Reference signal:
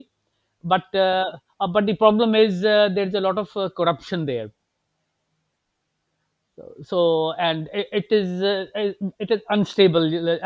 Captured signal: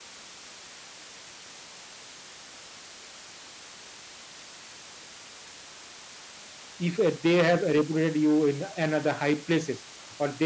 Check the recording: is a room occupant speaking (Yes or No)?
Yes